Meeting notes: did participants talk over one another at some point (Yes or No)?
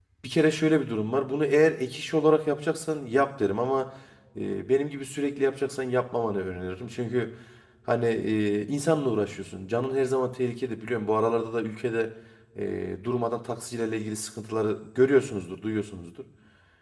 No